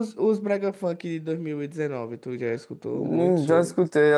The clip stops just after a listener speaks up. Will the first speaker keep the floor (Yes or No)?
No